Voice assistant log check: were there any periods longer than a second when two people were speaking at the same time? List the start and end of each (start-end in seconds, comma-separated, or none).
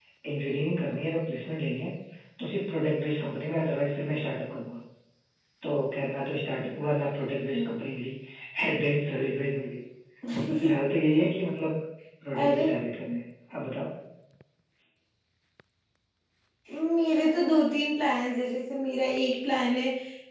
none